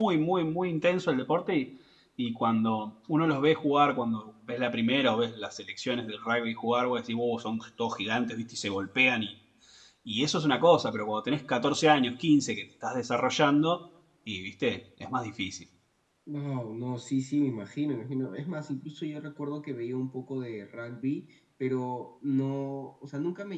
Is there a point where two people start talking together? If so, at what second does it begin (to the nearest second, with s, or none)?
none